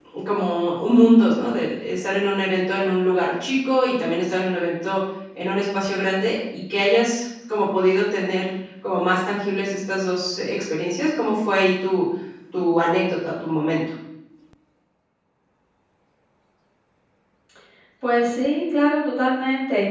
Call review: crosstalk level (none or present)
none